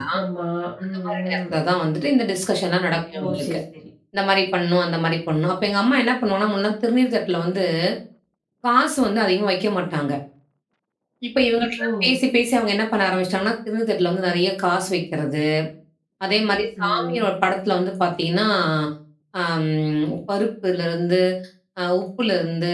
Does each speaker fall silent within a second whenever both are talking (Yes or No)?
Yes